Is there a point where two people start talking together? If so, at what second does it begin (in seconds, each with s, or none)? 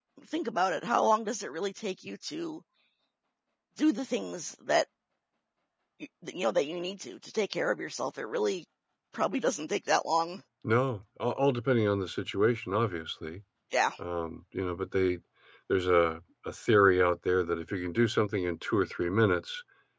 none